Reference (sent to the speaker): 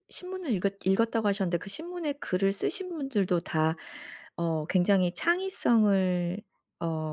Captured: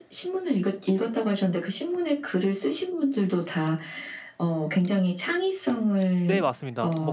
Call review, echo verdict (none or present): present